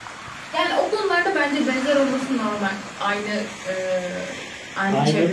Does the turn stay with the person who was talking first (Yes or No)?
No